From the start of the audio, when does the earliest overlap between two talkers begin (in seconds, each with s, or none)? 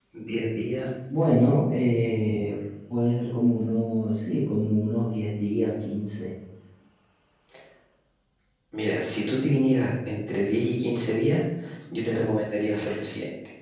none